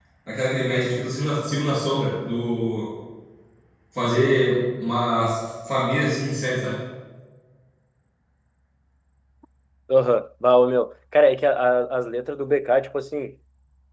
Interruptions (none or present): none